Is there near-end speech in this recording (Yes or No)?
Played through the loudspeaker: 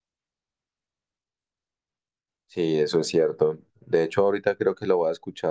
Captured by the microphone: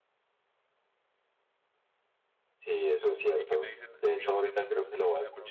Yes